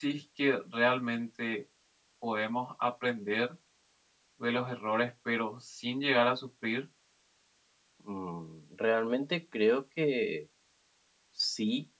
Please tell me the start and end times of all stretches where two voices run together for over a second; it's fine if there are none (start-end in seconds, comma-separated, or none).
none